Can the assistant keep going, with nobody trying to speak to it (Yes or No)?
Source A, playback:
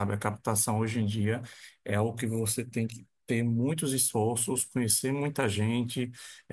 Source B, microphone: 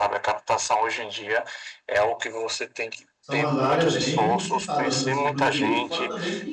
No